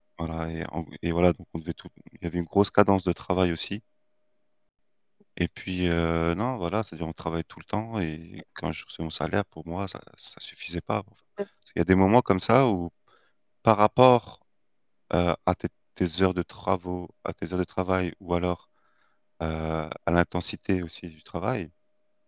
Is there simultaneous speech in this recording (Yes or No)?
No